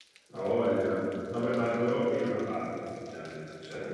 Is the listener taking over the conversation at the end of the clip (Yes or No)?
No